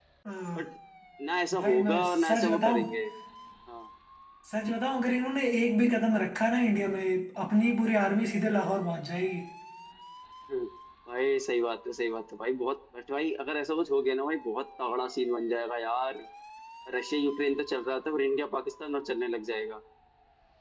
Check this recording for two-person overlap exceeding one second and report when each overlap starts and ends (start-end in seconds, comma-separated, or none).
1.6-2.9